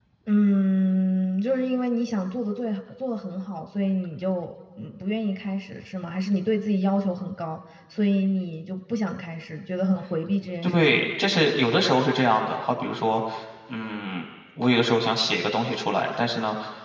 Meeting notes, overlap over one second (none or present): none